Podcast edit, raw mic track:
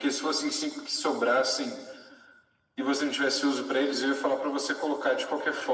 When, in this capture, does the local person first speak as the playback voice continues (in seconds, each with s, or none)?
none